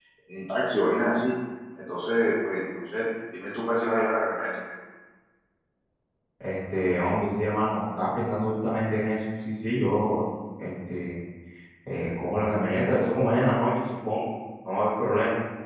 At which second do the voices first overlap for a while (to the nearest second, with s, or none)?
none